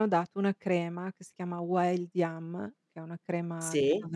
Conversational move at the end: listening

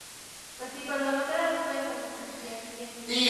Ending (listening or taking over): taking over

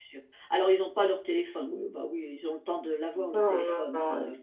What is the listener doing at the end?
taking over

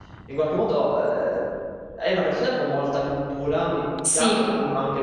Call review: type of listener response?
listening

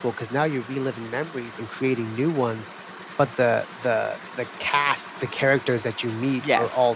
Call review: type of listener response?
listening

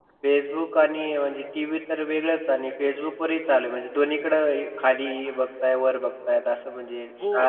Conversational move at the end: taking over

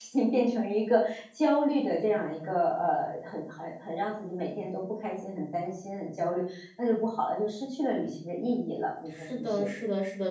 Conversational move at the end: taking over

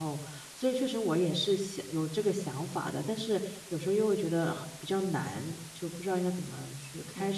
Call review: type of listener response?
taking over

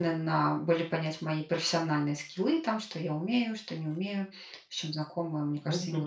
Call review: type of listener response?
taking over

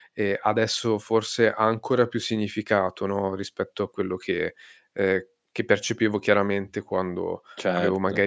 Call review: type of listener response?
listening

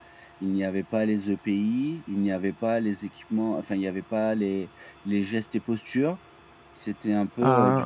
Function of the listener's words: listening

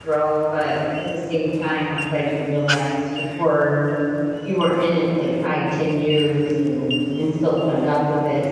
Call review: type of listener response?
listening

